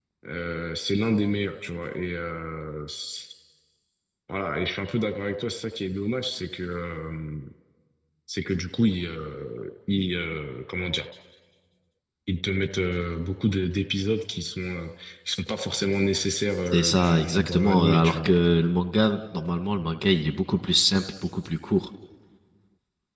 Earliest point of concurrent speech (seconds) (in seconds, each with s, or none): 16.7 s